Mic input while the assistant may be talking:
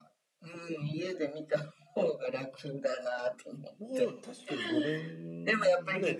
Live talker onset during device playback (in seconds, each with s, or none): 3.8 s